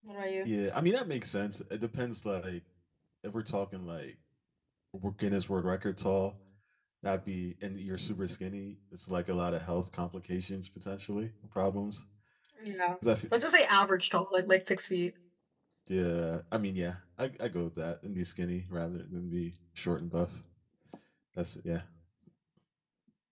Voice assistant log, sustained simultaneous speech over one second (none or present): none